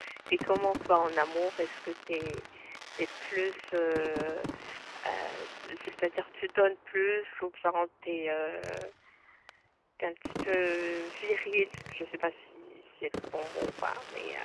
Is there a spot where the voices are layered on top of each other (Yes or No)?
No